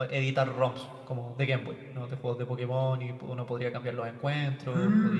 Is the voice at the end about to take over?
Yes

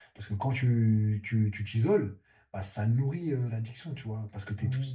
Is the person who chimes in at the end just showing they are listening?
No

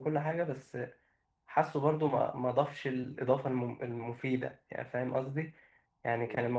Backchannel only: Yes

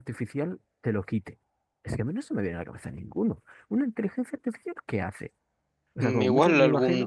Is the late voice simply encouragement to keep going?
No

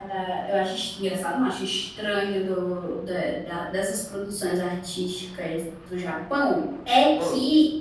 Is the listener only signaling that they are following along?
Yes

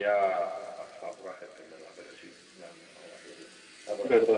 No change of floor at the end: No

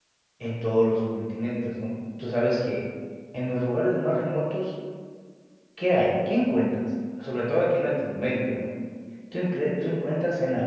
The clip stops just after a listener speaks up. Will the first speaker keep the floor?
Yes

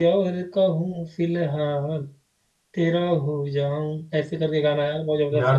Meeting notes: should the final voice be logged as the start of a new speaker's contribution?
Yes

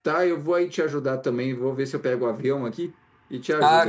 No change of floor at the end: No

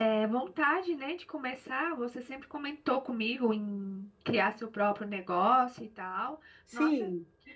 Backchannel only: No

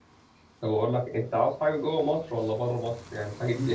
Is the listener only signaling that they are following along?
Yes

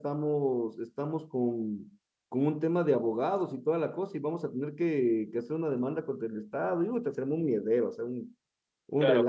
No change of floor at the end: No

